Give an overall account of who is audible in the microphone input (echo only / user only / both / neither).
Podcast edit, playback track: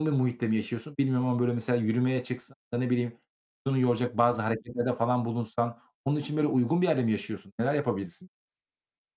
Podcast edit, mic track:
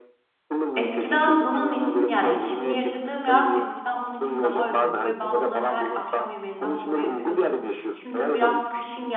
both